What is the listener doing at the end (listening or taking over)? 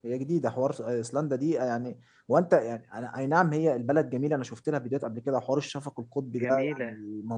listening